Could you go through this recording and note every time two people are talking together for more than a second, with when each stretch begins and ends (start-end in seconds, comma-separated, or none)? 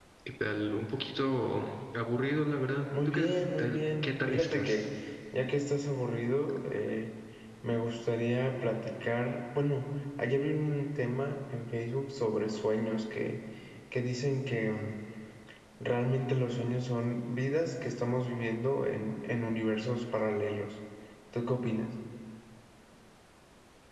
3.0-4.9